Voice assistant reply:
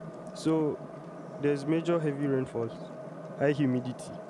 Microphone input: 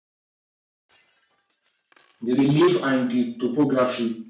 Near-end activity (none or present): present